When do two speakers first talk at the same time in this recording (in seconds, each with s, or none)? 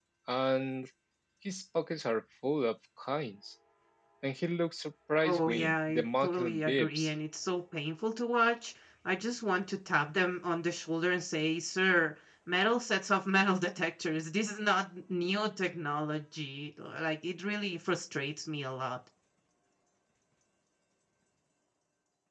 5.2 s